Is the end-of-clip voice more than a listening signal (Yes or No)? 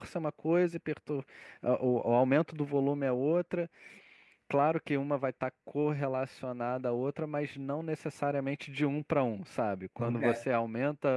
No